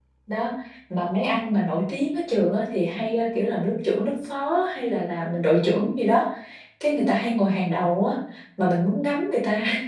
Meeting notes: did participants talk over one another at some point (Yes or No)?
No